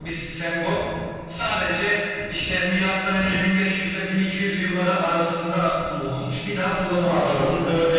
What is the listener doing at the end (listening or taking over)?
listening